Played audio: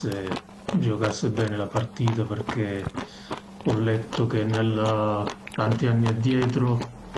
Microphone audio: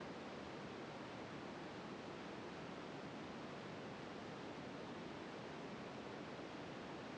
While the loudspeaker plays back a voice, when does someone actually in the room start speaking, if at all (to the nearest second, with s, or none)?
none